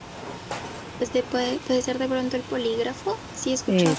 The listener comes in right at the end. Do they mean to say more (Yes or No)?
No